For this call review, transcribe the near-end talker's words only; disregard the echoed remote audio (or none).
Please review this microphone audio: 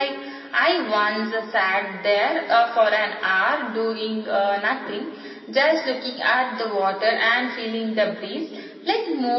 none